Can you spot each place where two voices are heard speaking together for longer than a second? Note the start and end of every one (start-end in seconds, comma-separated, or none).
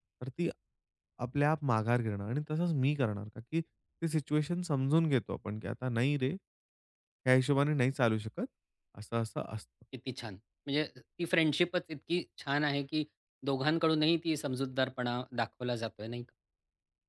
none